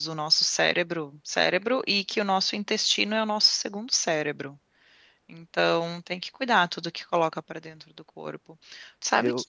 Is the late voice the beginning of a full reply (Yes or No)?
No